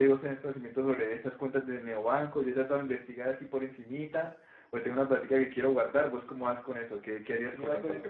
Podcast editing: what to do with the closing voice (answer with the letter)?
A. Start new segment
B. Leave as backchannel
A